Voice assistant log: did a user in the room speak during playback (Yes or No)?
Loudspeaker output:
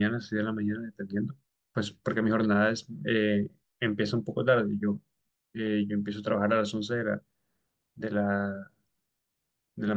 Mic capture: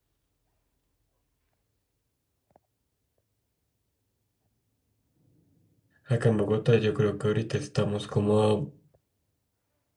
Yes